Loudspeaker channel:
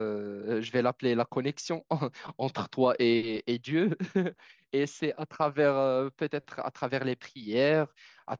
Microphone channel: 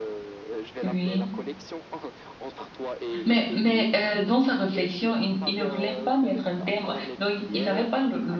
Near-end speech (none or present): present